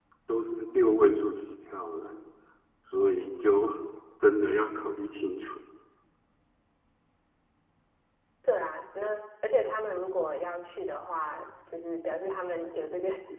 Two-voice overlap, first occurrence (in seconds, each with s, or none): none